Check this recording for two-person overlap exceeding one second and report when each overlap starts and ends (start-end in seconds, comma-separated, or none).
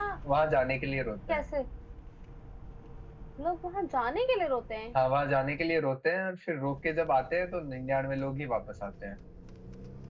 none